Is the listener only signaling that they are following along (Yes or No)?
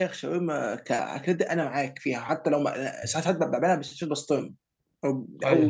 Yes